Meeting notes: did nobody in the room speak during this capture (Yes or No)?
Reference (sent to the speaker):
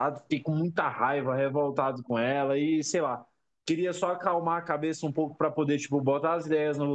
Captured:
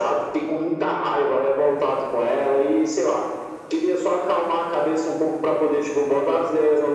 Yes